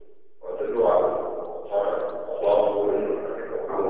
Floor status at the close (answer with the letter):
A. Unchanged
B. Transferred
A